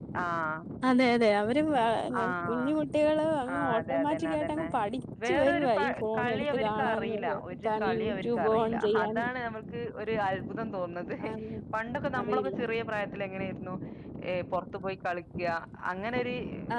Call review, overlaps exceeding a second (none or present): present